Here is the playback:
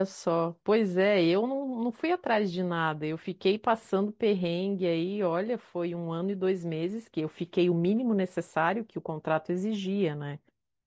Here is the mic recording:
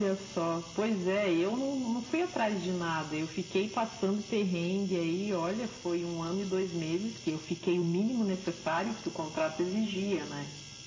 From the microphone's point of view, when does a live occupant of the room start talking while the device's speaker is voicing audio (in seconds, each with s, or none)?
none